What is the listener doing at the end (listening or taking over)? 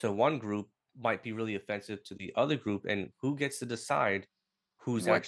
listening